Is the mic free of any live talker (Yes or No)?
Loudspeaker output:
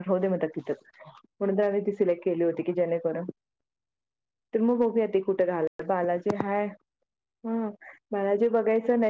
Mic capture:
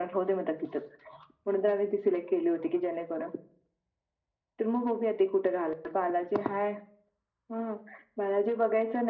Yes